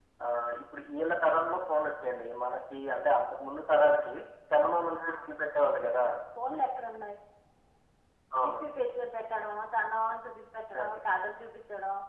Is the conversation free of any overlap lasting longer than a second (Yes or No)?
Yes